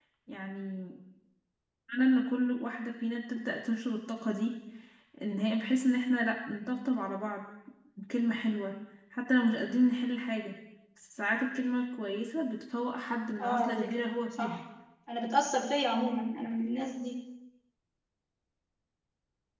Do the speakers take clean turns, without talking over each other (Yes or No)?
No